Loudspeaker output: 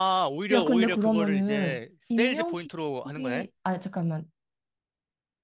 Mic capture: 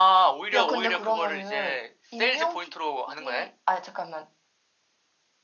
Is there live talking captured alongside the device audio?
No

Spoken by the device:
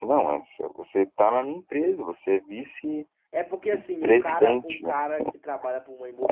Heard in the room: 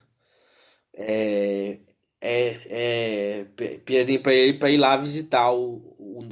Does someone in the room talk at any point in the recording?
Yes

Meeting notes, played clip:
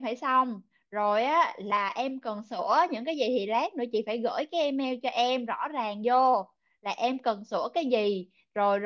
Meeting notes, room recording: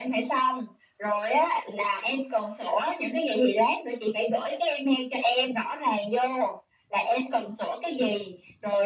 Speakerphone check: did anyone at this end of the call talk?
No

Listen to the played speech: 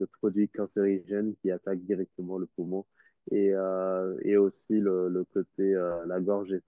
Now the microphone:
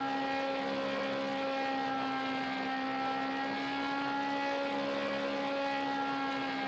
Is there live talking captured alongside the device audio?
No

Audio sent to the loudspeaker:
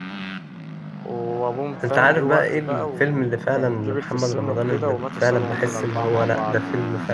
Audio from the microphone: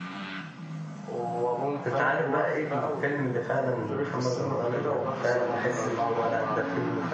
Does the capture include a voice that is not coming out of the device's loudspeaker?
No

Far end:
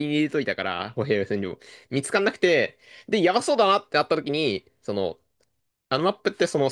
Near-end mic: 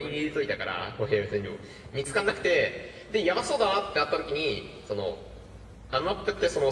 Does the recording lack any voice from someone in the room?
Yes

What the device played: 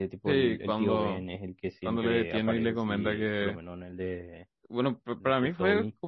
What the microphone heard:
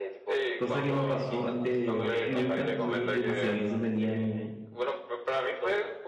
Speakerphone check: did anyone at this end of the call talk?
Yes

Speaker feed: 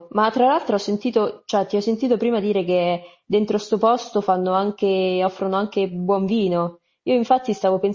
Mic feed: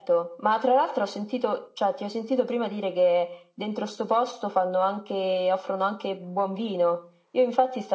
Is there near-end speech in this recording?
No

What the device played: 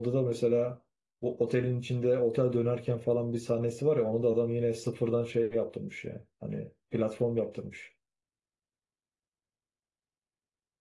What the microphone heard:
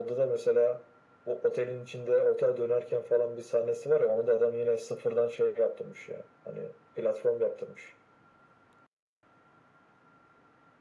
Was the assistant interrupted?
No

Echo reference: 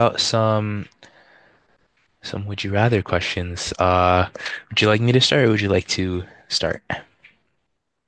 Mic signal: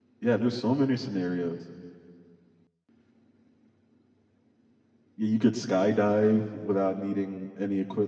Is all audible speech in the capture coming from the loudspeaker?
No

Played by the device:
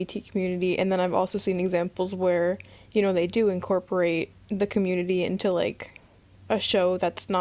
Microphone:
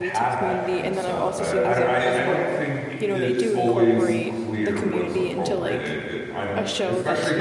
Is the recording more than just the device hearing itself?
Yes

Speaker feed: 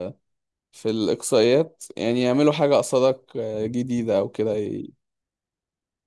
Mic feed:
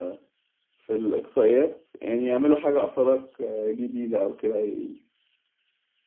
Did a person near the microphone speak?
No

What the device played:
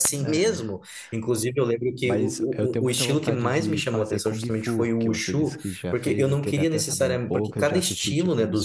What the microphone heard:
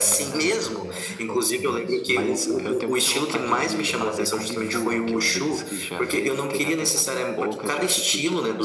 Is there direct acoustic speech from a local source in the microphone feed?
Yes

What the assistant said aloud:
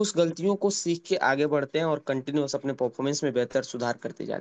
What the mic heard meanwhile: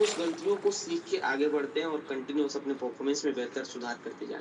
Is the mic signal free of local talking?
Yes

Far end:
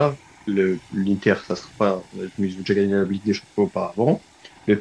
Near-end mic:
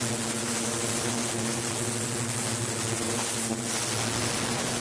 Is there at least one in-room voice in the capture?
No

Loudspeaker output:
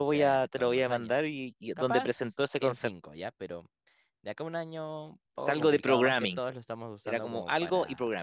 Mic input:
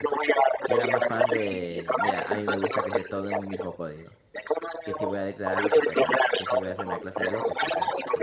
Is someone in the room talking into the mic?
Yes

